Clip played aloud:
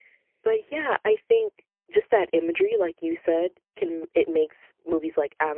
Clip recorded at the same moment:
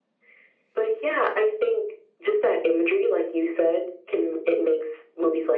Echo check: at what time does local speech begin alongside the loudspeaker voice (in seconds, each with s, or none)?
none